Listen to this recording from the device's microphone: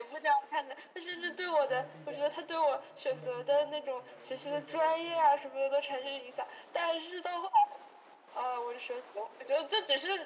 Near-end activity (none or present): present